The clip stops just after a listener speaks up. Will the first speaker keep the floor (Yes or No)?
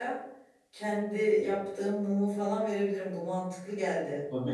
No